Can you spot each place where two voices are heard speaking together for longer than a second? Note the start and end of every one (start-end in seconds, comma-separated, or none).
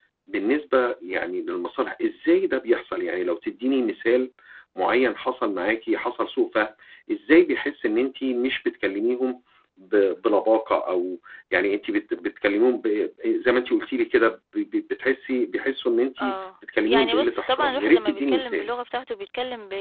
16.9-18.7